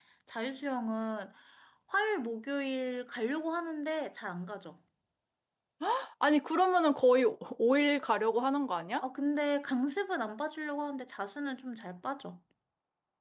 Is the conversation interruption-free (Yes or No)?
Yes